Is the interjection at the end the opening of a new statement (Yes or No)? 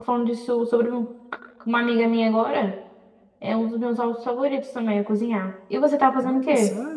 Yes